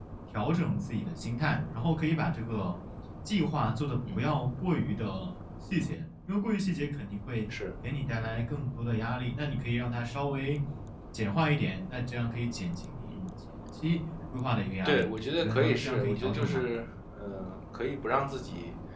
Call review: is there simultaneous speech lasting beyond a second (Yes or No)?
Yes